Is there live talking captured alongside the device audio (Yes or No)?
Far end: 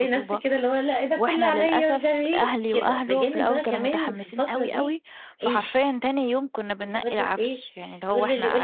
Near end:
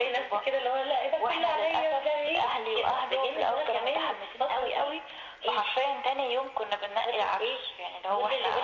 No